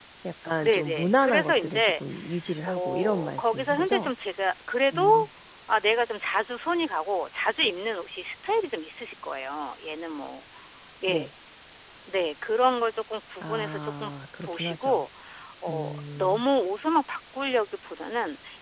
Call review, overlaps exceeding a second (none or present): present